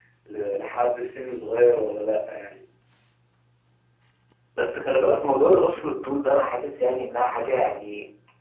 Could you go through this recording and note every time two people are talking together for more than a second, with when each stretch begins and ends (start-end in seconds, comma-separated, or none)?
none